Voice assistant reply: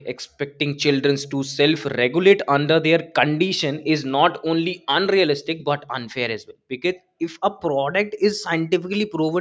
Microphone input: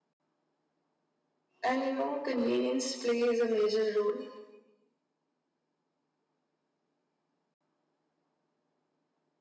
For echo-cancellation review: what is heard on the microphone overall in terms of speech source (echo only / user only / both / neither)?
user only